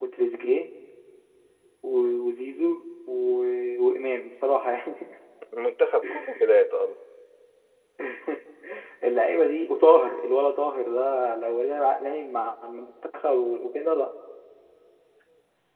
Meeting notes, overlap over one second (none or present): none